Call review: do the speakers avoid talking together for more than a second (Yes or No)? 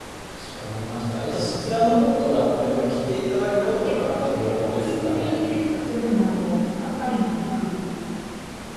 No